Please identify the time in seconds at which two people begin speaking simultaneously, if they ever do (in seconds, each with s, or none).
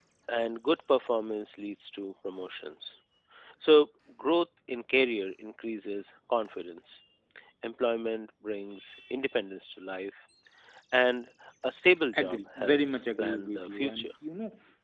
12.1 s